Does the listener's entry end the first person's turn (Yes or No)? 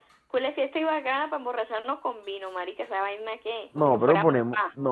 Yes